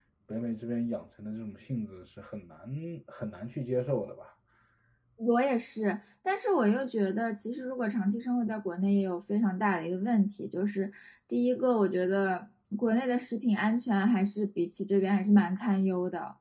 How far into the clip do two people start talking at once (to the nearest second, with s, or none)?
none